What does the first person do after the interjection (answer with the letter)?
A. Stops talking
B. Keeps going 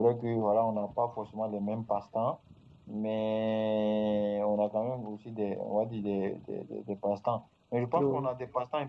B